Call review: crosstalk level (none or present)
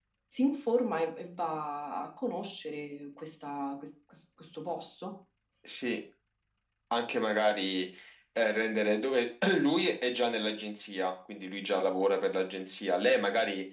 none